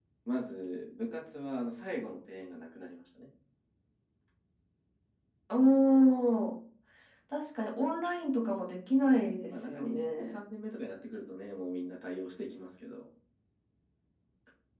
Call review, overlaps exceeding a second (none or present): present